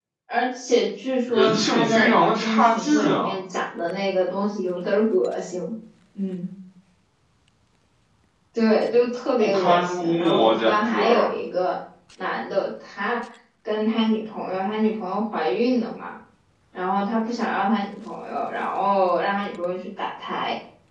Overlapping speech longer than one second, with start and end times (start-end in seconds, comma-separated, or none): 1.3-3.3, 9.4-11.1